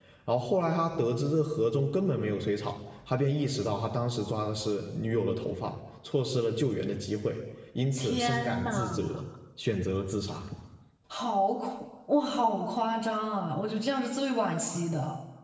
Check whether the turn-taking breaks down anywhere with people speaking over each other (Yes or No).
Yes